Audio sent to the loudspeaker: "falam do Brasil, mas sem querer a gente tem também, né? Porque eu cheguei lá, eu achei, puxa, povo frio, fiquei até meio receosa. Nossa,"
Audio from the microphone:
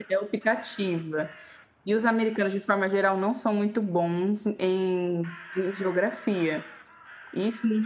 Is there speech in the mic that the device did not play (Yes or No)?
Yes